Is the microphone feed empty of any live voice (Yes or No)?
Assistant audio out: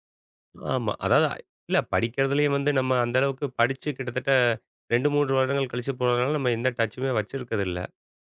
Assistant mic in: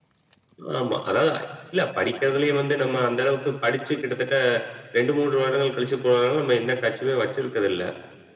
Yes